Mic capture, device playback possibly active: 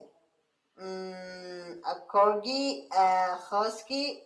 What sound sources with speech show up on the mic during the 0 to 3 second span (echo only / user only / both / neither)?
echo only